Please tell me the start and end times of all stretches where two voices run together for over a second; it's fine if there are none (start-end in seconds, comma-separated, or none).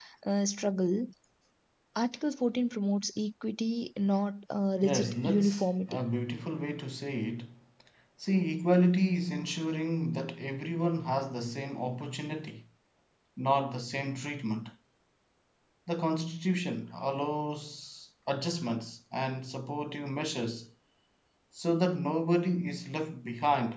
4.8-6.0